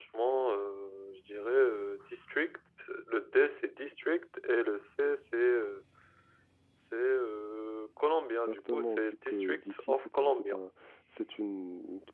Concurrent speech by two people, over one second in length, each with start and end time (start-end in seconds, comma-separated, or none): 8.3-10.6